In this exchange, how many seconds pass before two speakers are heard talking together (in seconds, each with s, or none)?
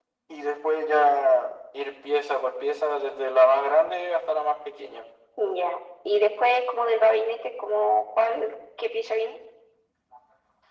none